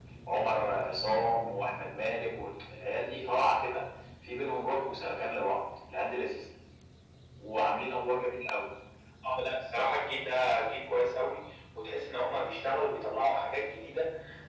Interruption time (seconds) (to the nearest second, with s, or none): none